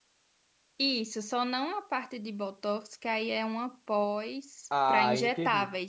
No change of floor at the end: No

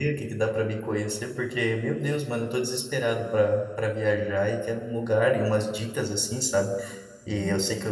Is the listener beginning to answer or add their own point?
No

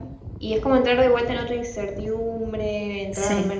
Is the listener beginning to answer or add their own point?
Yes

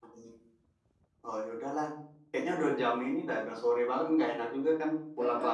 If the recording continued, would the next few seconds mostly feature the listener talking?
Yes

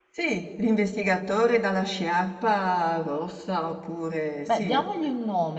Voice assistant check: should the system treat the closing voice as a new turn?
Yes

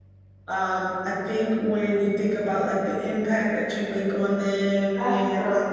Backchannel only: Yes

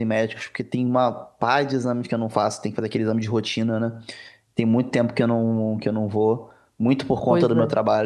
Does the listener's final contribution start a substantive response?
No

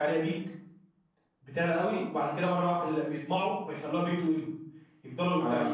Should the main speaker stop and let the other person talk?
No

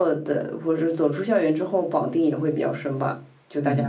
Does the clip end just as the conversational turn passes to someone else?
Yes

